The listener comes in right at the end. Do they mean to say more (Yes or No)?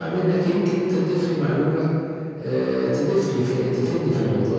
Yes